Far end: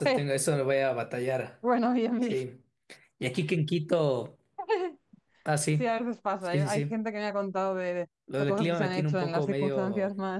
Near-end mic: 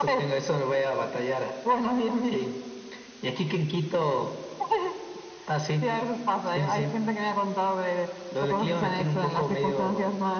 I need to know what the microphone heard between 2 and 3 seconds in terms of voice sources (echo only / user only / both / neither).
echo only